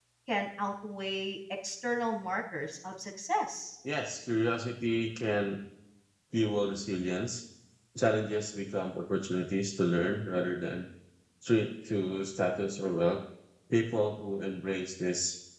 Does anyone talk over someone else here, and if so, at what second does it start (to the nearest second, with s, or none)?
none